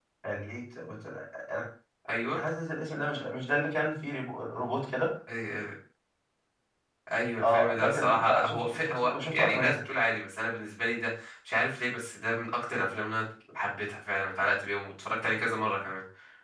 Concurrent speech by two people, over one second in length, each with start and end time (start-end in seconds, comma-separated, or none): 7.4-9.8